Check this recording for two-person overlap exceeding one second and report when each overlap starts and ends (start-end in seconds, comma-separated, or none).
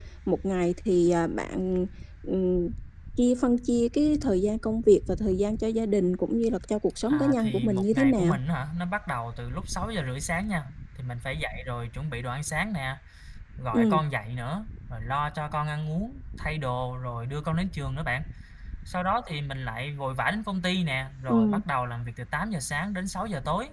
7.1-8.4